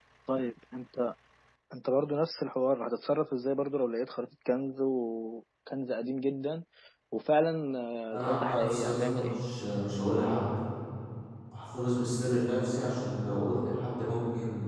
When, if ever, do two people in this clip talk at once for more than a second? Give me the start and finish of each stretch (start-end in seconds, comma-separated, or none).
8.1-9.4